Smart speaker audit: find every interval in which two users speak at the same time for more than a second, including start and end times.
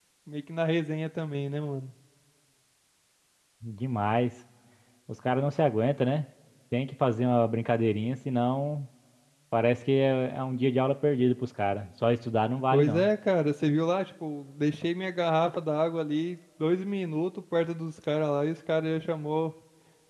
none

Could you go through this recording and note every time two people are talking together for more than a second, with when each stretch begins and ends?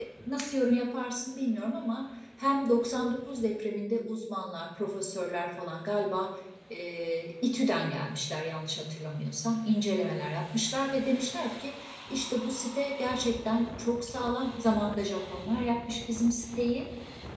none

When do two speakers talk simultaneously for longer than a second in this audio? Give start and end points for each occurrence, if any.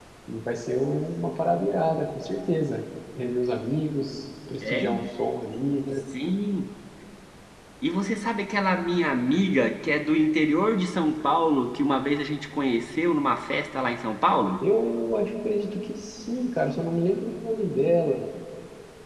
none

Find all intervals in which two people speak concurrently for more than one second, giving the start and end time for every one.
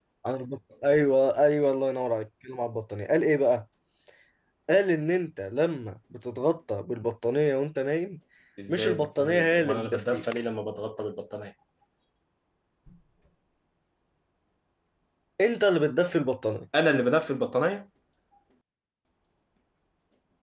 8.7-10.2

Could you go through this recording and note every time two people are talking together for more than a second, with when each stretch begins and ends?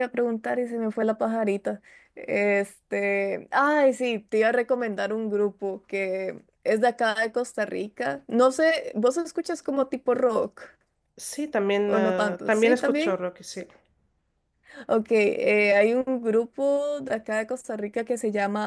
11.9-13.1

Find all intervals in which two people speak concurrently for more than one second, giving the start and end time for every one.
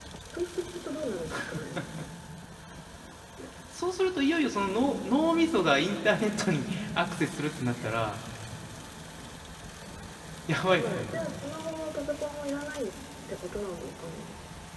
none

